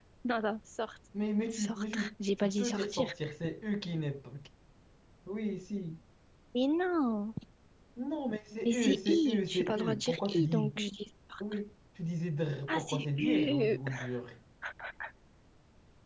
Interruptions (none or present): present